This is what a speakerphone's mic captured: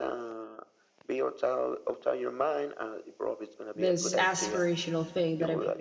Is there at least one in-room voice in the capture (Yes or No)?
Yes